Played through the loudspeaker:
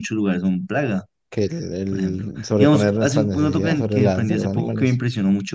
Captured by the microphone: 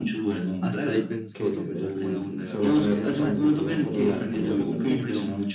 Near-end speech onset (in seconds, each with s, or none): 0.6 s